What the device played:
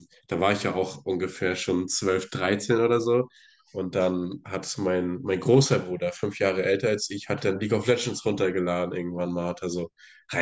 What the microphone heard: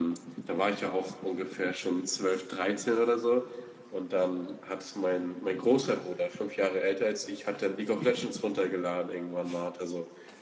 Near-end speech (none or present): none